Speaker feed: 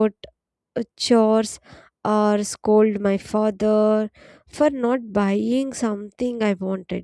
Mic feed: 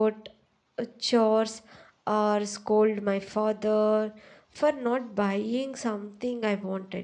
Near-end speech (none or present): none